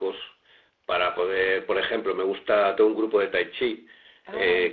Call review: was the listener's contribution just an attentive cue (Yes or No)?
Yes